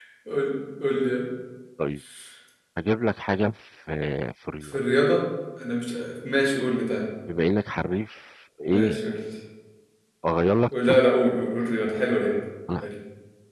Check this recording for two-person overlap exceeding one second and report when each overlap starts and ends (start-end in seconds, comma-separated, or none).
none